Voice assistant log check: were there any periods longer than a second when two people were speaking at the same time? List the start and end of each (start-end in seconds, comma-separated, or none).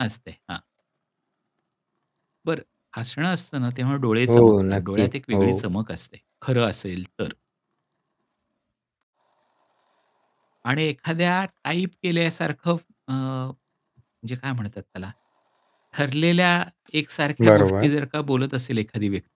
4.3-5.6